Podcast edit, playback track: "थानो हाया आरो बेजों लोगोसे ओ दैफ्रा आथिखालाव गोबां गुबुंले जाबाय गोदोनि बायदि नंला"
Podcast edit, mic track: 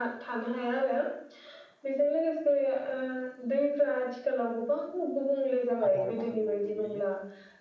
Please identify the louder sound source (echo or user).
echo